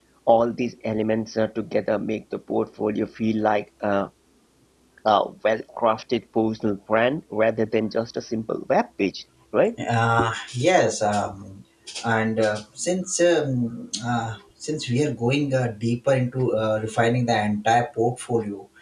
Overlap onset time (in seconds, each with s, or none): none